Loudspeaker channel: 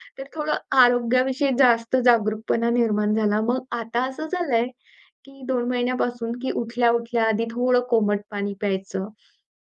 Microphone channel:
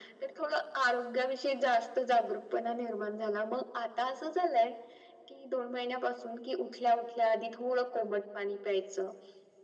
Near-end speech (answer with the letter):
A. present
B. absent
B